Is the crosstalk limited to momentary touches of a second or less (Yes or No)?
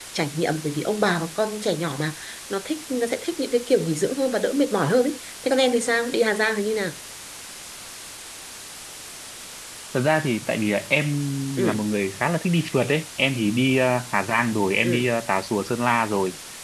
Yes